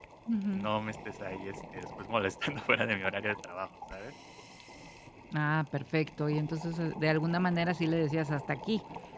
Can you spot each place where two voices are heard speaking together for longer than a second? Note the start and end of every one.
none

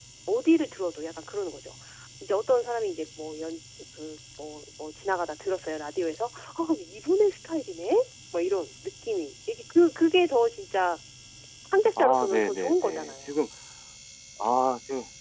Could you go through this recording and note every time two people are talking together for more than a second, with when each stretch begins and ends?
12.0-13.3

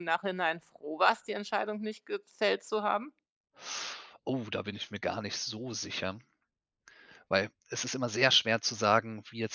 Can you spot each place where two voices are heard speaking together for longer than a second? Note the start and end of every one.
none

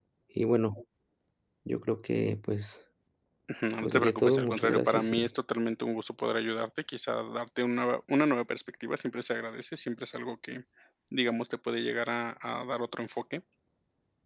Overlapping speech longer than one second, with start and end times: 3.9-5.3

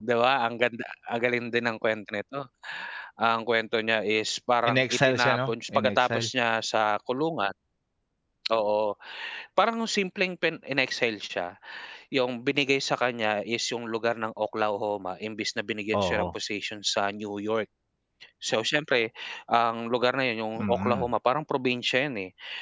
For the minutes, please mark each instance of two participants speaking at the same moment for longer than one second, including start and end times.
4.7-6.3

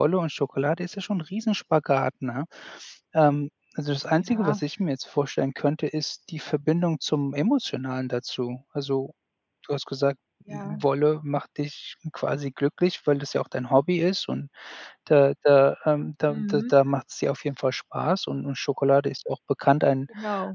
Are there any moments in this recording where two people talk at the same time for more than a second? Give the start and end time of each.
none

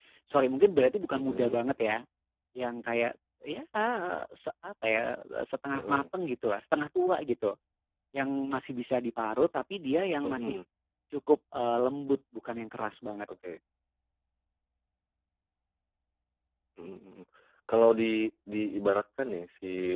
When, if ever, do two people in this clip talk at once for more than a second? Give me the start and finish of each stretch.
none

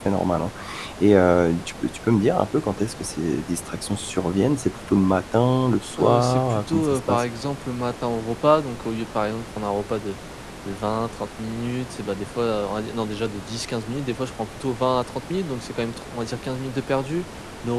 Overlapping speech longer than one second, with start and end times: 6.0-7.2

